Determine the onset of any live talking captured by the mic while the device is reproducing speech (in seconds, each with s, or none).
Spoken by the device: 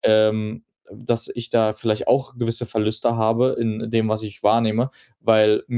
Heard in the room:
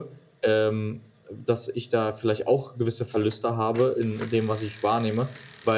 none